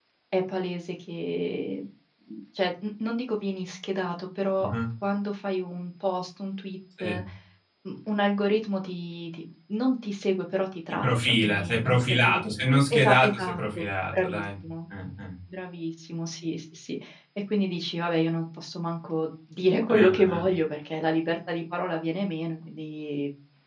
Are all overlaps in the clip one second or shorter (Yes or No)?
No